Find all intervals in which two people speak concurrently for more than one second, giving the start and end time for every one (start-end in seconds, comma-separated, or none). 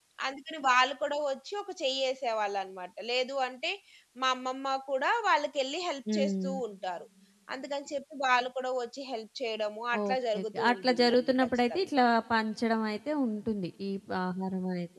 10.0-11.9